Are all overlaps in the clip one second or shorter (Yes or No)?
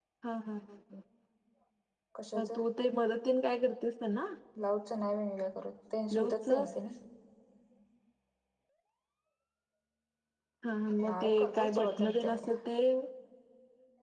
No